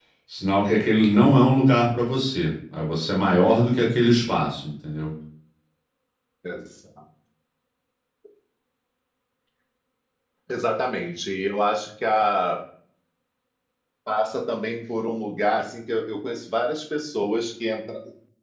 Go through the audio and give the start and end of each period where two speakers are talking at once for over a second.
none

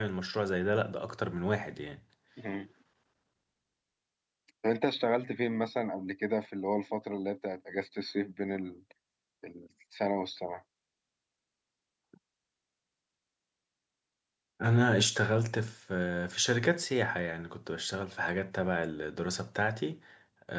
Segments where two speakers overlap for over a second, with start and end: none

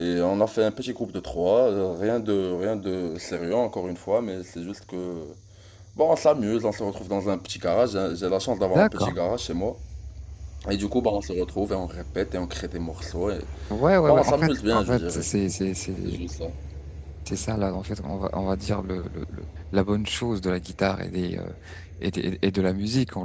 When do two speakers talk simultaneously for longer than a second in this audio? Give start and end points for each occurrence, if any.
14.1-15.3

